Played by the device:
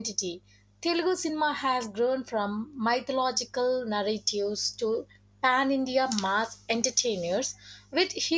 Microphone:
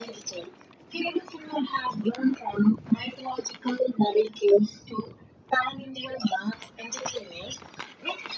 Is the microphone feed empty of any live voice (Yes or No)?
Yes